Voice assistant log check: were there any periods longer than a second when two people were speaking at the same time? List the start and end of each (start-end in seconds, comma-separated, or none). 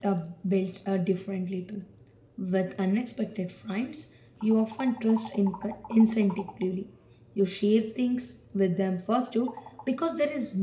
none